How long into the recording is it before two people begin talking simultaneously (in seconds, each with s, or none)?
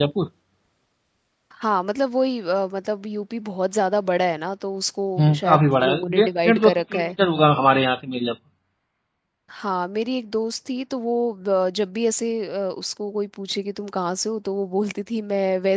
5.2 s